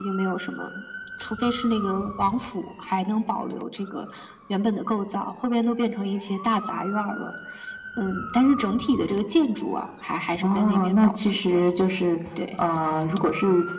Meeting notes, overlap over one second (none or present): present